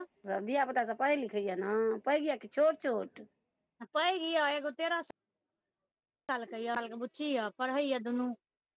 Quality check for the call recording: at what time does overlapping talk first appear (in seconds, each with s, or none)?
none